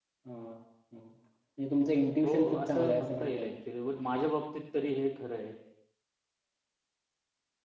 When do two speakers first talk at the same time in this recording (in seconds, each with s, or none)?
2.2 s